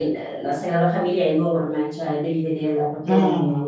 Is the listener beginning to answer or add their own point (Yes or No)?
No